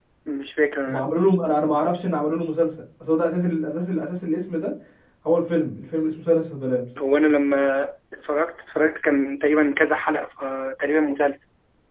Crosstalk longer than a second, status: none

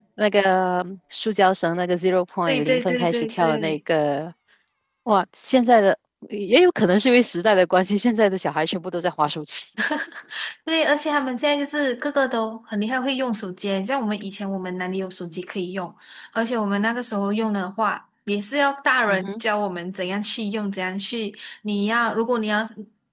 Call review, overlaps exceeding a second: present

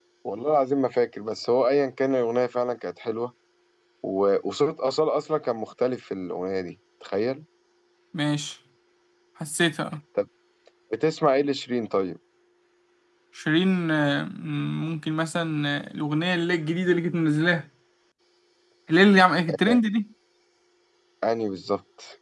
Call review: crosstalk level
none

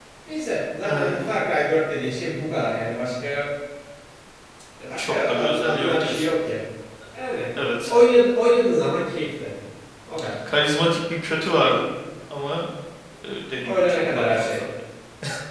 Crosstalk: present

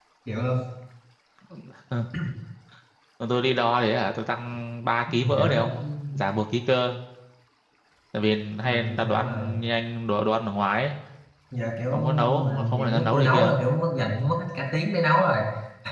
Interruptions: present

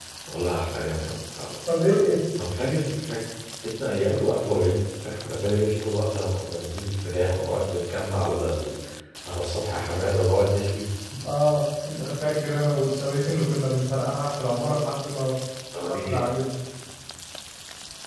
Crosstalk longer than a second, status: none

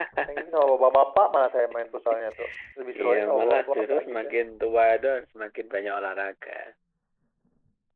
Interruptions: present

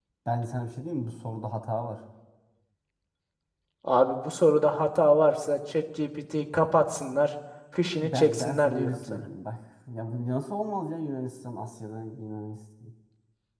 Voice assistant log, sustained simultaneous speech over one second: present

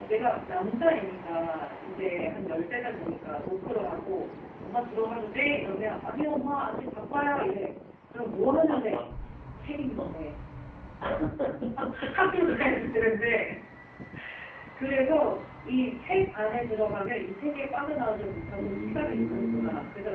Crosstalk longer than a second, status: present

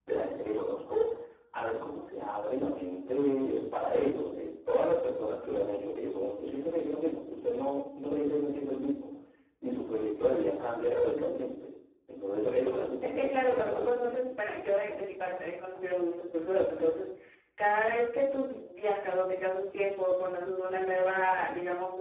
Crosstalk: present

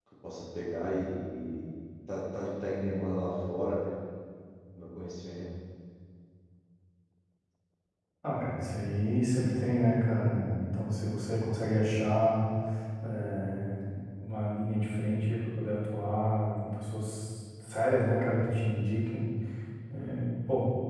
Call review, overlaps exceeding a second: none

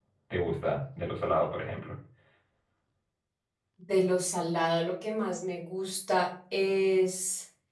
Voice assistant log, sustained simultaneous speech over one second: none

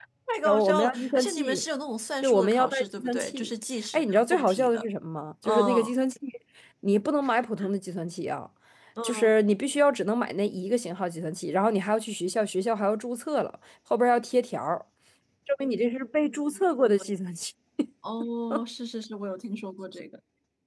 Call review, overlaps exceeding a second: present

